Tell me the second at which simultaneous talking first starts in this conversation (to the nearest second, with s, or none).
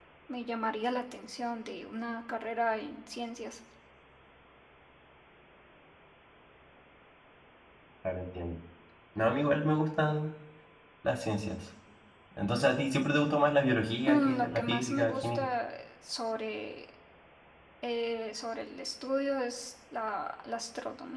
14 s